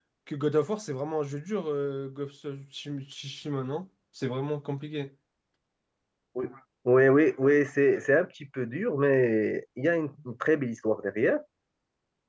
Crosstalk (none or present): none